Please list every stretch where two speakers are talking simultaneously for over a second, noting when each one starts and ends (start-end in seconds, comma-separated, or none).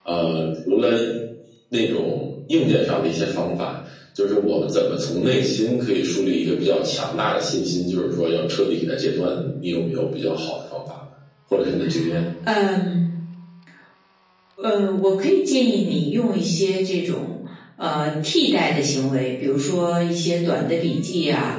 none